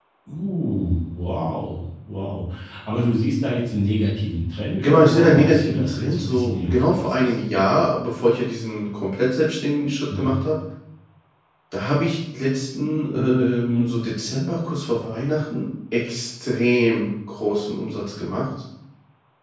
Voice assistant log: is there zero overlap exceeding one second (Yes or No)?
No